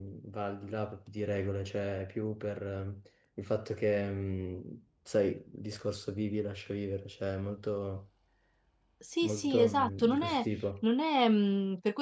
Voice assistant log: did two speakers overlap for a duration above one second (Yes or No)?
Yes